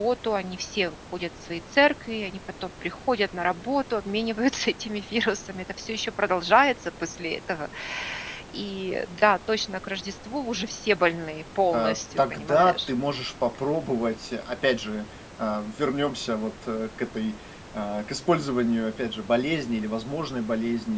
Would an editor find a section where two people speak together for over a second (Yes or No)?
Yes